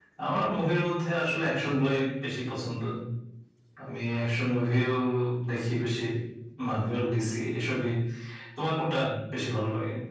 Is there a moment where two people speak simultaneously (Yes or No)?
No